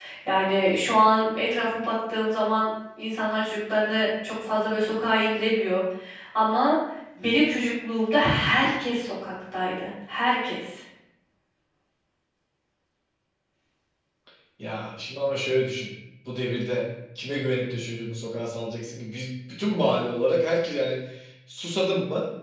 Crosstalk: none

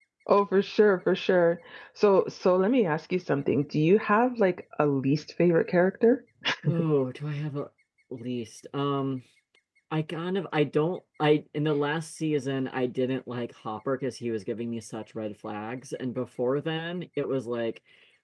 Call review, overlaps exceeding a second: none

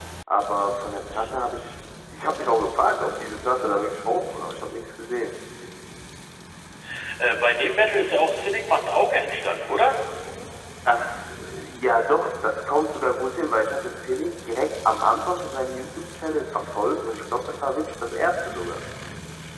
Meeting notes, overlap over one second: none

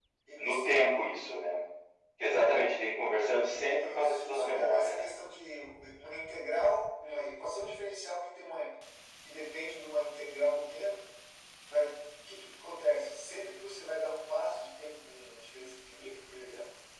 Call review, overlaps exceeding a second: present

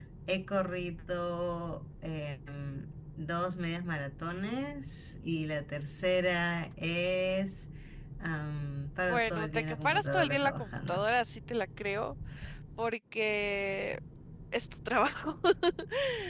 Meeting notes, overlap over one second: present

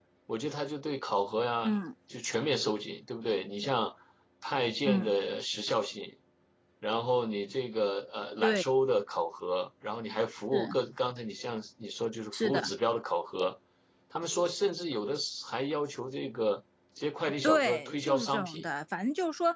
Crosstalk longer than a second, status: present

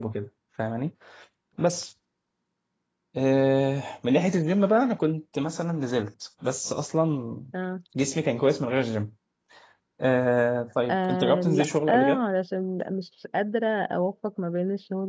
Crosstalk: present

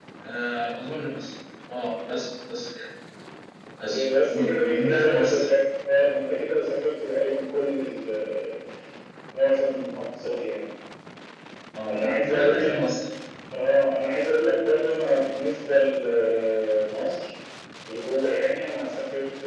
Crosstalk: present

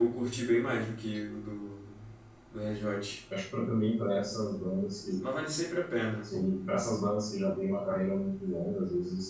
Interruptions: none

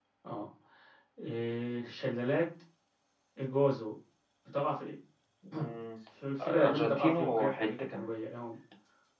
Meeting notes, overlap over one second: present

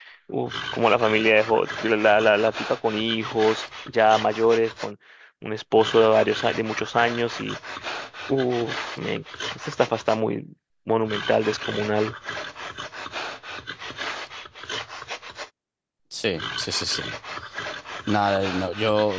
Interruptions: none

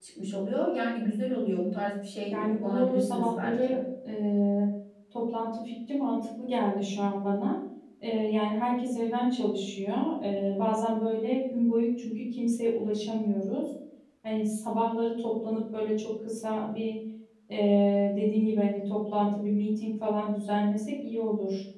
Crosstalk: present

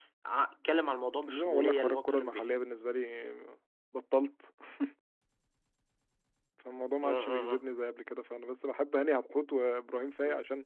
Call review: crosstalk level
present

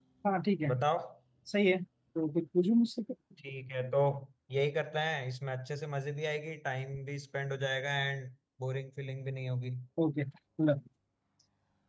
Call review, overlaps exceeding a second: none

